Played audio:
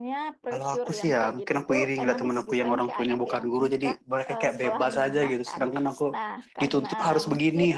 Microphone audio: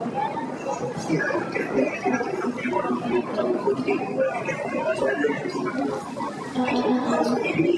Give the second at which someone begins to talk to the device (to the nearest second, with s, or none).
7 s